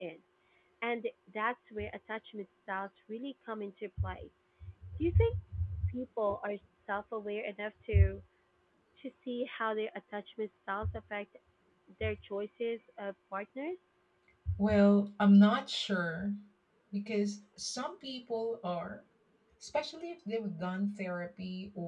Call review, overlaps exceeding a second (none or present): none